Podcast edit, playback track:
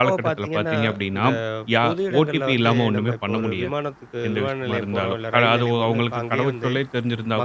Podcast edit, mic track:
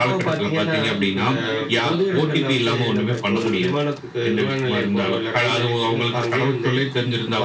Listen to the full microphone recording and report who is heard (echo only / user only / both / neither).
both